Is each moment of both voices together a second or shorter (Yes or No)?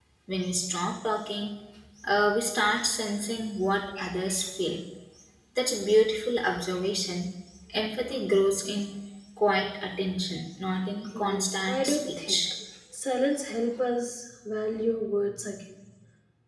No